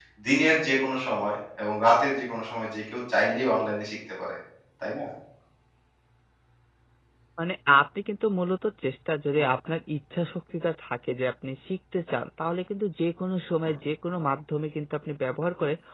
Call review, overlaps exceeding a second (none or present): none